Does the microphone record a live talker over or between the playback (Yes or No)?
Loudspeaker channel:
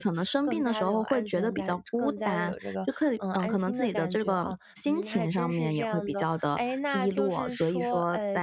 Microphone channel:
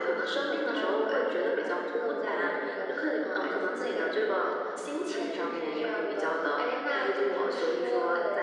No